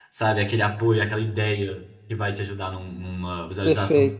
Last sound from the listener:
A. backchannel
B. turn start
B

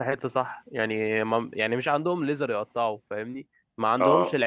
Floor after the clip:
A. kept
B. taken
A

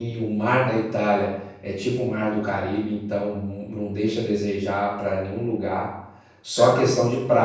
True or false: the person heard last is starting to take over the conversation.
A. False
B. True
A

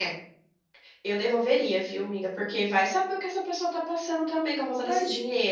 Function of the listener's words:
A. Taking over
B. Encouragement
A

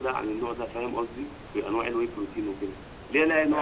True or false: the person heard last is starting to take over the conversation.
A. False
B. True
A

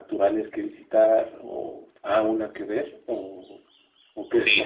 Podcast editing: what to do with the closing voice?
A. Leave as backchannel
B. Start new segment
B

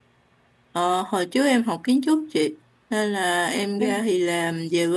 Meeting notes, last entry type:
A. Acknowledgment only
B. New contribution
A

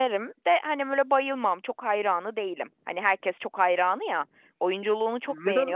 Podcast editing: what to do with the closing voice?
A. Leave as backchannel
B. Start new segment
B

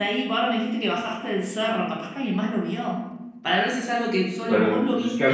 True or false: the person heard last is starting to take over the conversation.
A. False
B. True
B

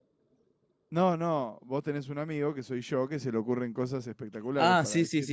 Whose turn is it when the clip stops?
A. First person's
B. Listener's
B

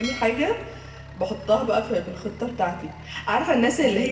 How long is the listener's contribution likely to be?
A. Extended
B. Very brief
B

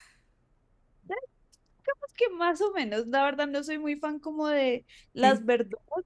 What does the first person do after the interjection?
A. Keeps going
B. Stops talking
A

